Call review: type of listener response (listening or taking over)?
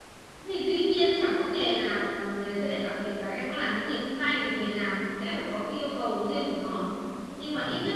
listening